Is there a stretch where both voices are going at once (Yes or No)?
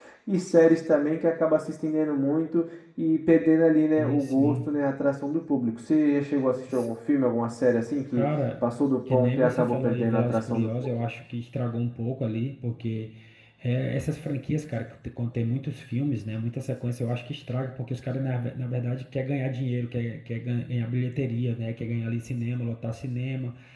Yes